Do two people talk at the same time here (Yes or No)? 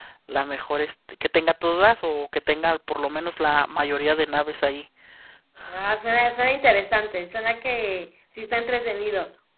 No